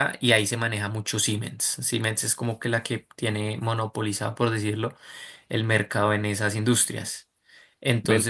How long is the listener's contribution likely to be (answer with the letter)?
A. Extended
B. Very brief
B